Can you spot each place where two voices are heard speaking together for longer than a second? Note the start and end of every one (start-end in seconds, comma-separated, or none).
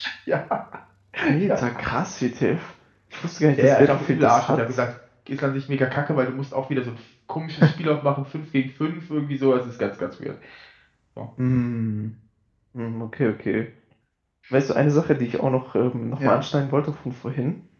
3.6-4.8